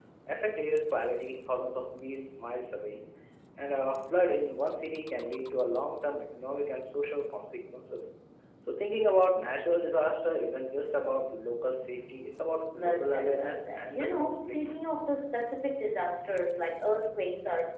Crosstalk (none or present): present